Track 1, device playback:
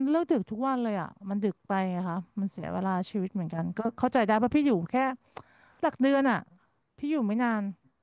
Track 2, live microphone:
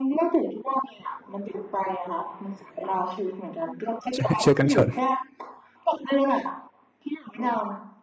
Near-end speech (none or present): present